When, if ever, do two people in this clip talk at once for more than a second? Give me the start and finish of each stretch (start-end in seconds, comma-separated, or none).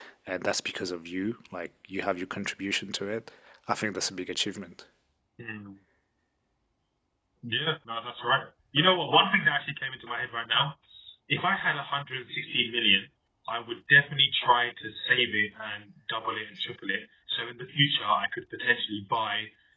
none